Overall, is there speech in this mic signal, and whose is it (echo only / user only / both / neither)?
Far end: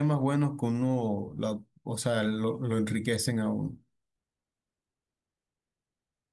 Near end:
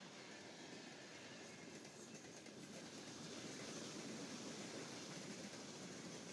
neither